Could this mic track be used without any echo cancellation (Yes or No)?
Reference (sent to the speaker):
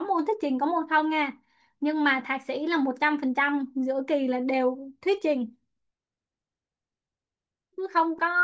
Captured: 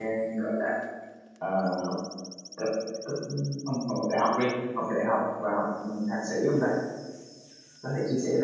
Yes